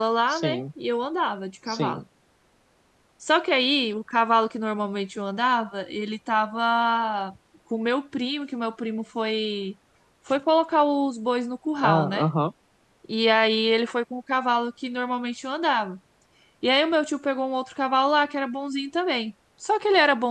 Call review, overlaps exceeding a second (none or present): none